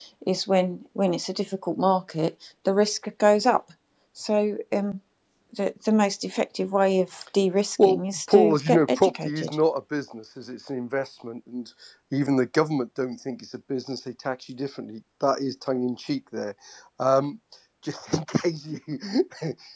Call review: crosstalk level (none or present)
present